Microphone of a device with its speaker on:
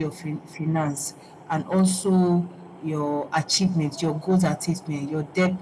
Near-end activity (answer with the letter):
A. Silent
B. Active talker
A